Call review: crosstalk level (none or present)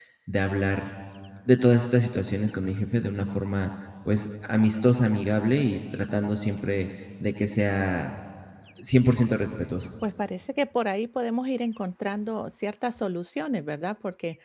none